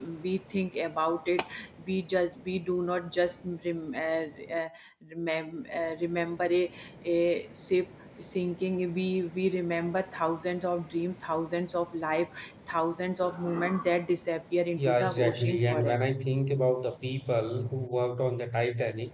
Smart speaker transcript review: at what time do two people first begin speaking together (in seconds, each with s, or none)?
14.8 s